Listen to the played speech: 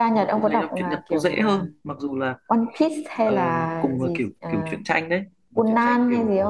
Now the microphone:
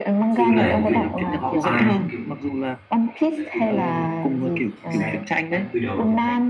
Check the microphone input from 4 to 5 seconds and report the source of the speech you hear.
both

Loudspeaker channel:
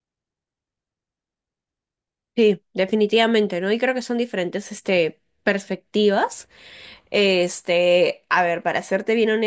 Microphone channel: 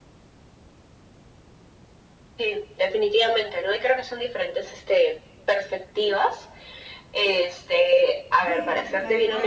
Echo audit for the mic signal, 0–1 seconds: neither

